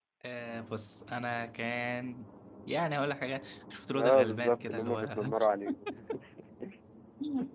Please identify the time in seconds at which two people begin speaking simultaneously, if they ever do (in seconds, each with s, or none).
3.9 s